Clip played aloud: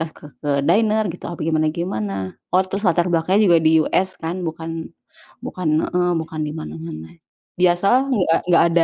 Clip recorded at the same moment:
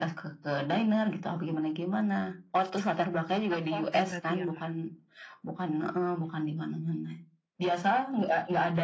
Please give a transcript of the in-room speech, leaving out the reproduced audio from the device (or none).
Tentang keluarga berarti ya, Kak?